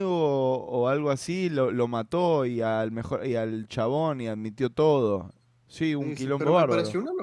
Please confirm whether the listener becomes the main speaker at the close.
Yes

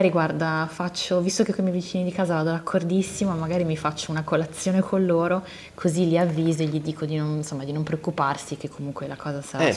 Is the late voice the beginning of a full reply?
Yes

